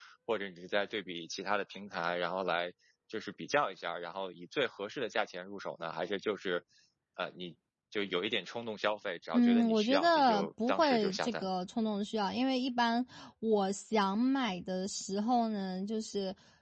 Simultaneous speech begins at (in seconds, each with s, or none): 9.3 s